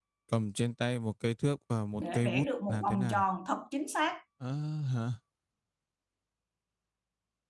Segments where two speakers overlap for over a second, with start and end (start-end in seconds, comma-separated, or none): 2.0-3.2